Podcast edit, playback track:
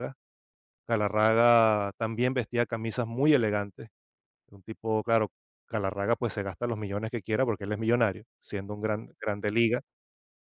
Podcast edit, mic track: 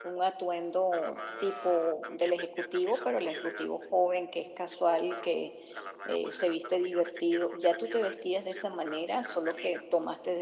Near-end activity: present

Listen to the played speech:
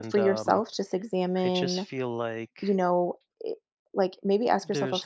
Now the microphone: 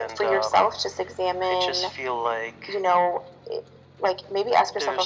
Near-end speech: none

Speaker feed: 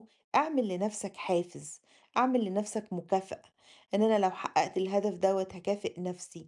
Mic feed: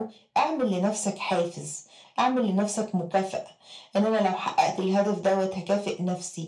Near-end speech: none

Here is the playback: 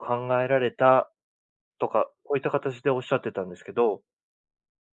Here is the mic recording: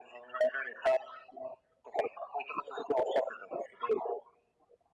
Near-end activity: none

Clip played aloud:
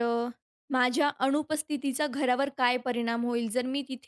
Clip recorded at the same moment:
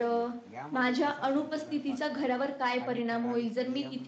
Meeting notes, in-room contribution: present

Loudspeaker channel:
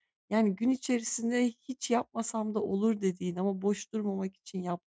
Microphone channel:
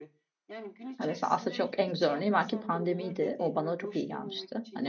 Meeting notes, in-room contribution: present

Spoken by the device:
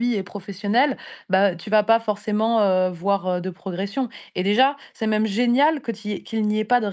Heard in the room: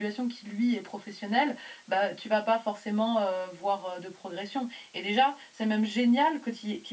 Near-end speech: none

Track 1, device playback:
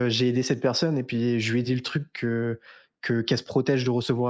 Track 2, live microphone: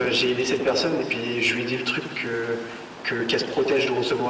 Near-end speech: none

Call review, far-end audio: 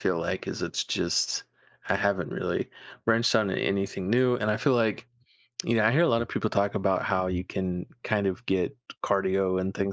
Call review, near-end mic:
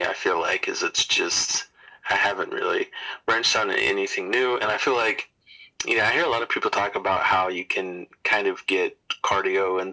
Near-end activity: none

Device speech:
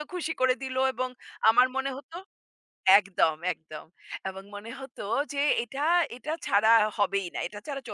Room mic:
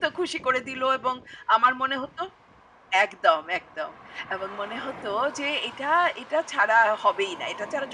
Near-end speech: none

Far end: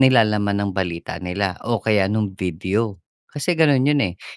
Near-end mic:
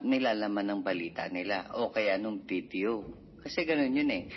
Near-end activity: none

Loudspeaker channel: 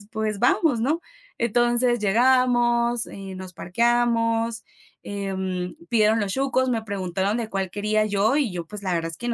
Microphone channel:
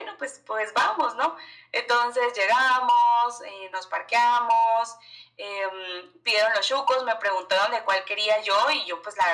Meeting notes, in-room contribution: none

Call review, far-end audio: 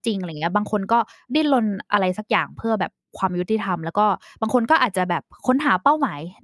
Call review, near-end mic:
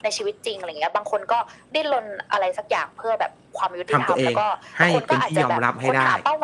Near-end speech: present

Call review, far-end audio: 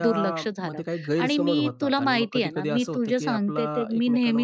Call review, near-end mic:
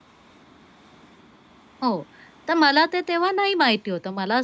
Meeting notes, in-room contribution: present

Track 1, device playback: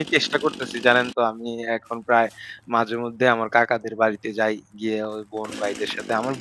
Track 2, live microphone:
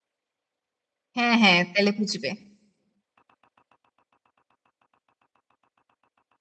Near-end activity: present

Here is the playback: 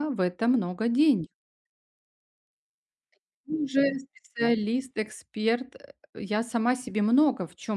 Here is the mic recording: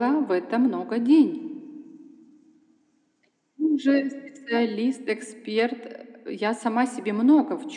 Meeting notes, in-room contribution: none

